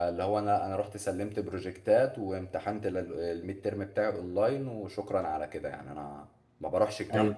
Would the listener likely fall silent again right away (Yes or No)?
No